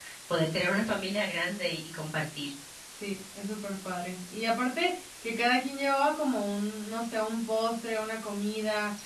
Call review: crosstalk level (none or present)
none